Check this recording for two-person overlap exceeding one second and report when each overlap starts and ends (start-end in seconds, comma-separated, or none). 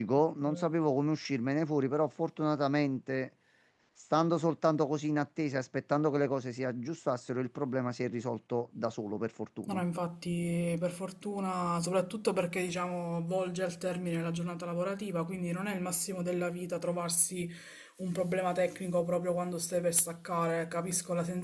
none